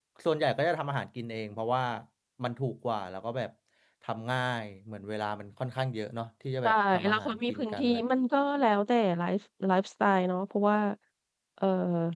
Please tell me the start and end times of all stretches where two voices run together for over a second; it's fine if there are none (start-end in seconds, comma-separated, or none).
6.6-8.0